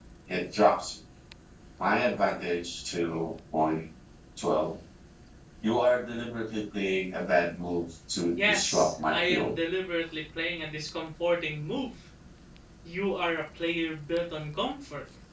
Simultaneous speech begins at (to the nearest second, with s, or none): 8 s